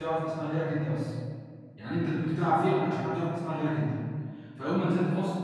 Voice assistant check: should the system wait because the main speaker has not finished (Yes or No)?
Yes